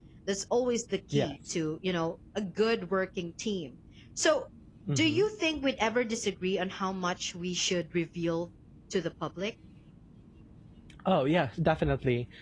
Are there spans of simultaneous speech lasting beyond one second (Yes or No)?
No